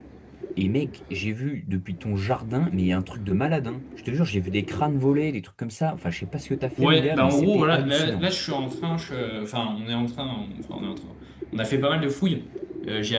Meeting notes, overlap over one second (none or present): present